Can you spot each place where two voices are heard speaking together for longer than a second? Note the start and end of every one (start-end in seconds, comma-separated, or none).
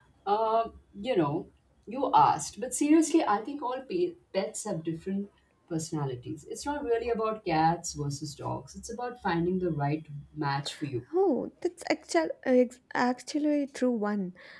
none